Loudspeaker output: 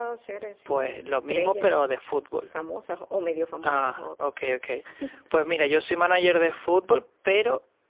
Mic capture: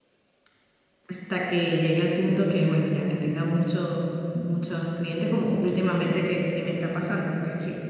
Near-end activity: present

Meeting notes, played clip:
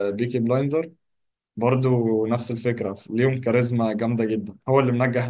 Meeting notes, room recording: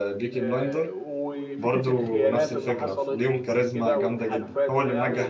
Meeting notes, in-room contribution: present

